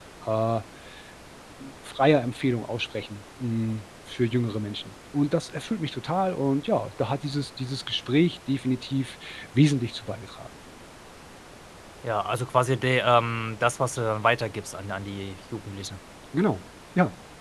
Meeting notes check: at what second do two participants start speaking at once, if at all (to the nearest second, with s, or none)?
none